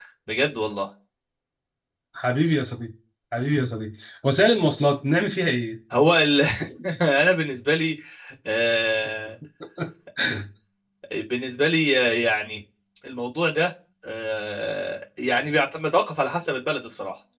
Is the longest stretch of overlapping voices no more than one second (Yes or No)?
Yes